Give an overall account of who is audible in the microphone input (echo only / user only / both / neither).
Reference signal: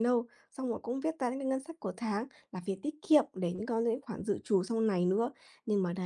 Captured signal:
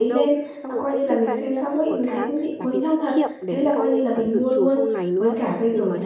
both